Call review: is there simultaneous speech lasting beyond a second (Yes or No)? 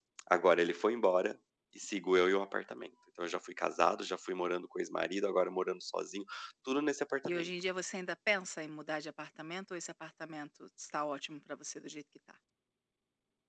No